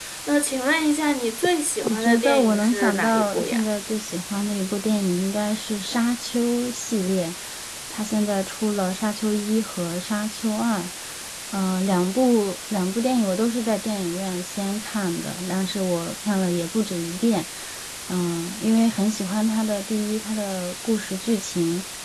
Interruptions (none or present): present